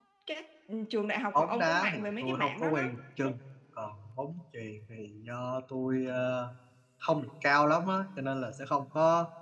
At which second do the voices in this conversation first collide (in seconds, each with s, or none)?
1.3 s